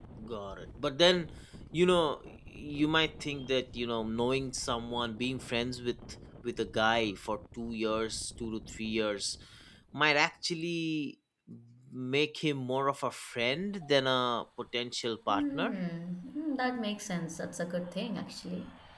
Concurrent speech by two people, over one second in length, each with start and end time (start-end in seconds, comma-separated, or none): none